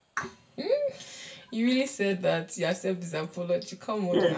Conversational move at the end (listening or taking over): taking over